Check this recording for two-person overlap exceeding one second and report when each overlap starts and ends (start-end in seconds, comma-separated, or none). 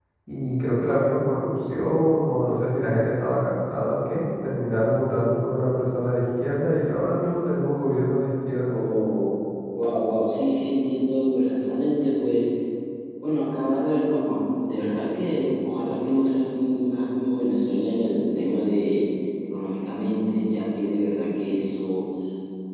none